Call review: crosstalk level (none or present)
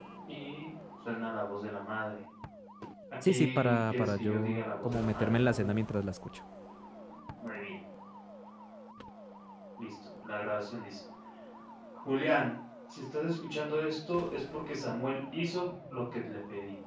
present